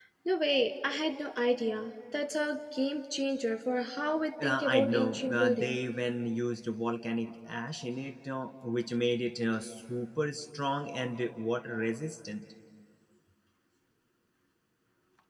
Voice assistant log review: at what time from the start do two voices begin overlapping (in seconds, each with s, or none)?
4.4 s